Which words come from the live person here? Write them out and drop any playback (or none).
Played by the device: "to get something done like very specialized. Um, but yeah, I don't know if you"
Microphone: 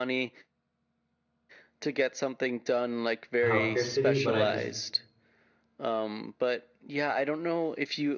healthcare city, but I just,